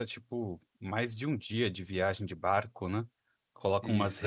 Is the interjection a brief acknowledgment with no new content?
Yes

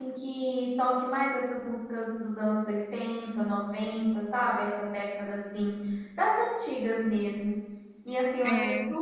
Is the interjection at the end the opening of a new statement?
No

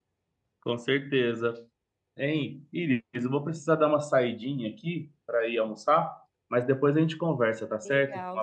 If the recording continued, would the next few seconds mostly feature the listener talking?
Yes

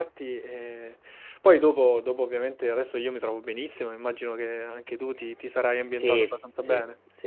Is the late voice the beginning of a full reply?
Yes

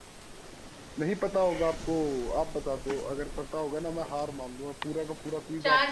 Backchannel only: No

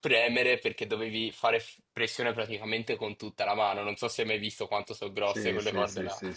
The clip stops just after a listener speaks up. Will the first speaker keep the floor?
No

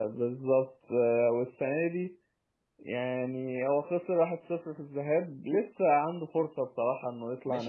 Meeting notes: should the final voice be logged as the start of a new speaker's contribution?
Yes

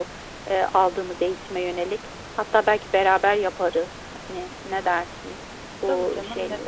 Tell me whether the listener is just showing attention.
No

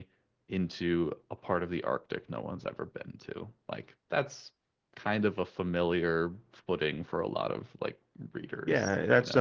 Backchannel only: No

